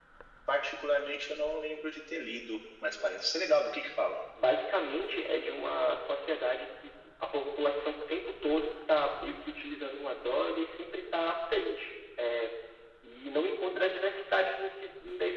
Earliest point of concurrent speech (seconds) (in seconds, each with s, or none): none